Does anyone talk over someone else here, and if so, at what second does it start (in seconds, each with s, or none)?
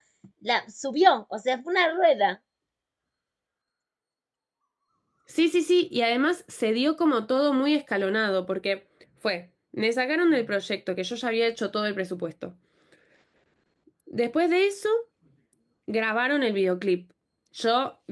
none